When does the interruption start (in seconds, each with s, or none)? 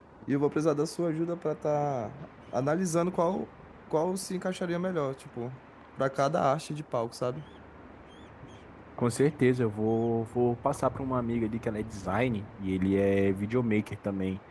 none